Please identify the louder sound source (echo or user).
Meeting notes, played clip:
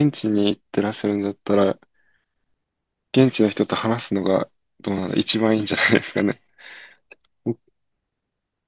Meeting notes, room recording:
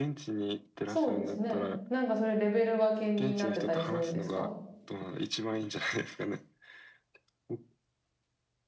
user